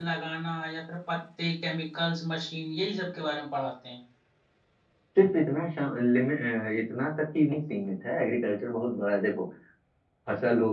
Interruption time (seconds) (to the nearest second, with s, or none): none